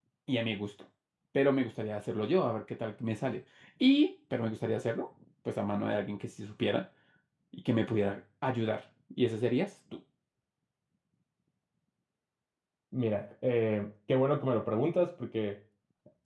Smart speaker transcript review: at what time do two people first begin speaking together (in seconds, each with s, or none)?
none